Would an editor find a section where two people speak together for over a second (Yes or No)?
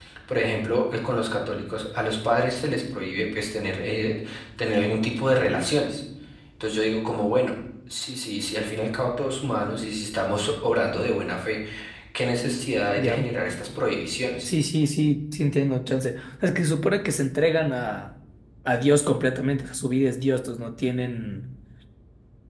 No